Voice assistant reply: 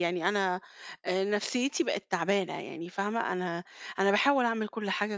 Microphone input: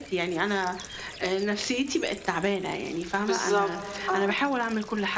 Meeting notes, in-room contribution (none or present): present